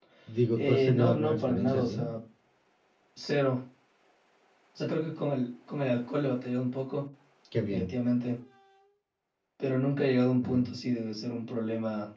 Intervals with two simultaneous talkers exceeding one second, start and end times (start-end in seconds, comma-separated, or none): 0.6-2.0